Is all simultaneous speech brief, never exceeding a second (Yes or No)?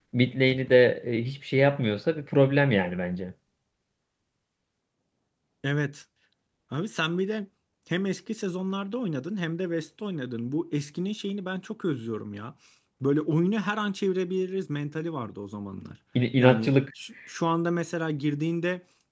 Yes